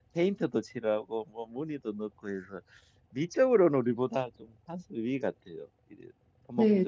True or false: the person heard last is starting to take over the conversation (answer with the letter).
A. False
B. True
B